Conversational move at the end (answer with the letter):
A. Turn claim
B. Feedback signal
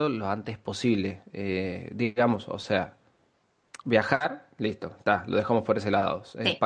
B